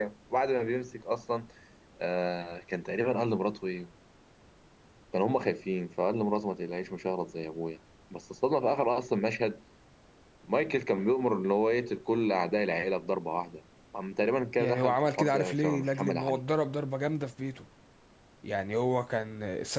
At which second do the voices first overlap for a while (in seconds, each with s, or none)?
14.6 s